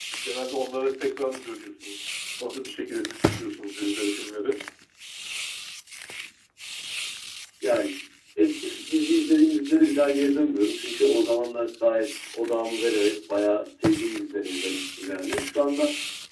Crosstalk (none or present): none